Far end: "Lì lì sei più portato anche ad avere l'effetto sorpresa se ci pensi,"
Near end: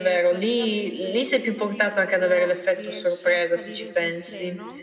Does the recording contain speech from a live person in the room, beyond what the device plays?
Yes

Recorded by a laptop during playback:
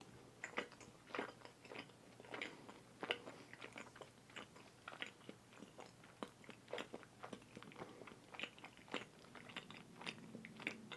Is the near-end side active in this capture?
No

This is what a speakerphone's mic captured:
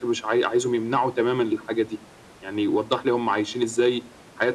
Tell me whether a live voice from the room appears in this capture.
No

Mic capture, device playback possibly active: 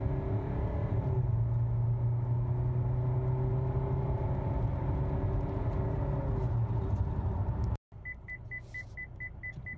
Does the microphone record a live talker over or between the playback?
No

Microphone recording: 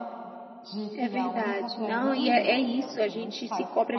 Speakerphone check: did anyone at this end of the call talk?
Yes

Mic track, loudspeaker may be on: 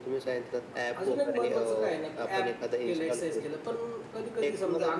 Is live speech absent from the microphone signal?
No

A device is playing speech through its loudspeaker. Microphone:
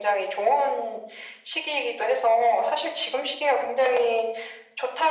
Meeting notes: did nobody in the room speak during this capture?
Yes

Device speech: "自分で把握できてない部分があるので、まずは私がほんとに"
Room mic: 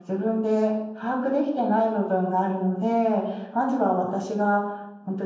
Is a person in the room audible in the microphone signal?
No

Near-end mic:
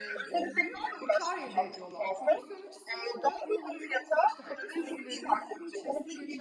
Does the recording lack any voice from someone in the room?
No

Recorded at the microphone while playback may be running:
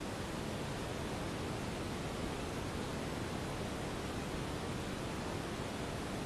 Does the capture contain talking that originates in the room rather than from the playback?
No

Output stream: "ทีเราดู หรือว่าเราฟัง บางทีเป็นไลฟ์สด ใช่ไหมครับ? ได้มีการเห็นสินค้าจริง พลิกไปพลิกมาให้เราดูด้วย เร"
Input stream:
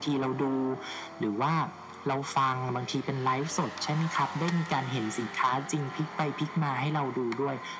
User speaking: No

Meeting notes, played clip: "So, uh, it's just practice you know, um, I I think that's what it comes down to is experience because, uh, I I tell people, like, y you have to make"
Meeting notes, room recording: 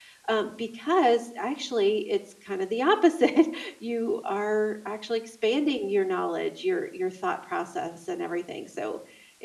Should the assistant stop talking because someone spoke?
Yes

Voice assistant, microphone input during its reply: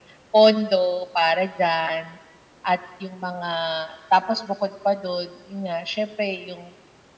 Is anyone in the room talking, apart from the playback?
No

